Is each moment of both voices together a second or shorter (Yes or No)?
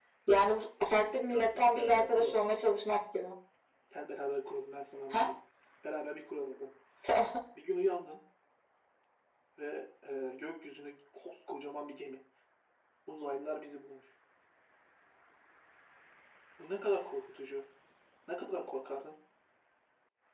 No